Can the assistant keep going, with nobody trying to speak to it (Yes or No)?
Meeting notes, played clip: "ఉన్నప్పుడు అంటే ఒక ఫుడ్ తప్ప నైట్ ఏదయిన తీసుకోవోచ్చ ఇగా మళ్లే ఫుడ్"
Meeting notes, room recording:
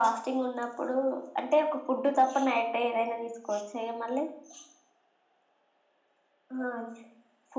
Yes